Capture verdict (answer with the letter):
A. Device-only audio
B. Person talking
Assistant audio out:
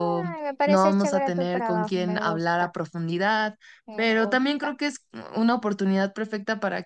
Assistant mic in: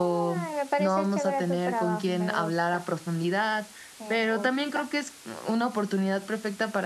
A